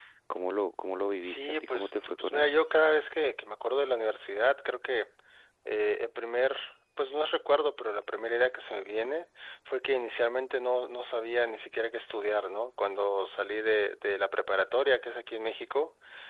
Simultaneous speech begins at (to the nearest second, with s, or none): 1 s